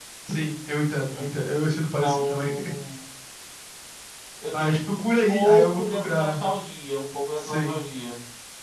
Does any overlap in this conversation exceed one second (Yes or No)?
Yes